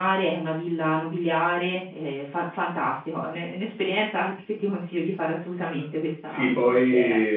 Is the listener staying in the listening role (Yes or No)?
No